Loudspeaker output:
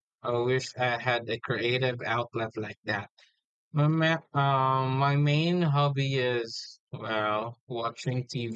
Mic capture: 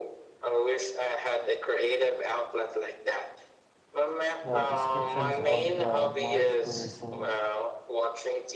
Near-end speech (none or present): present